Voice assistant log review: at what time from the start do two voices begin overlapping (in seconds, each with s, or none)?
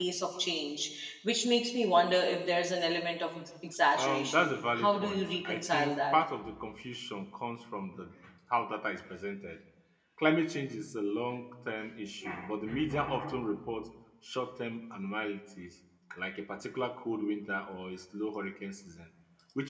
4.0 s